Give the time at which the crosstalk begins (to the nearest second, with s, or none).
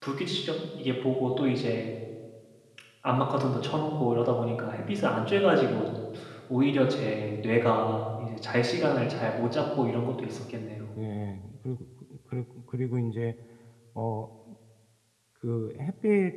none